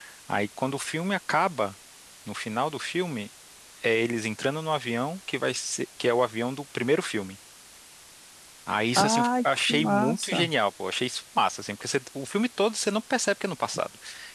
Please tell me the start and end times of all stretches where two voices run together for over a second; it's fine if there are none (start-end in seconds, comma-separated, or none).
9.0-10.5